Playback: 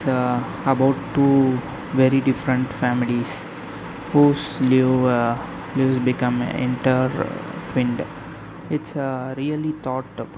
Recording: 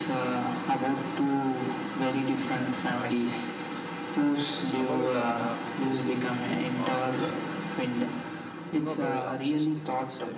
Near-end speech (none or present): present